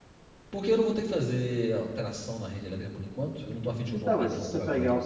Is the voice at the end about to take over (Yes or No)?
Yes